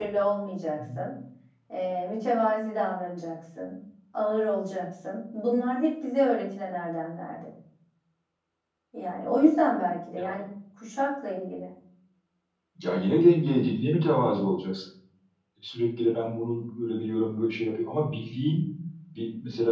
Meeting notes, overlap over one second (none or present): none